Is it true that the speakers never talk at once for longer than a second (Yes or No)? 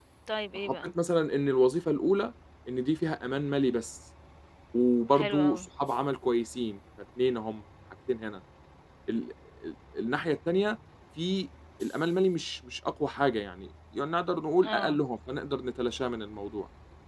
Yes